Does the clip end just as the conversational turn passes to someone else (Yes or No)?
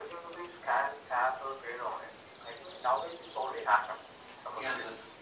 Yes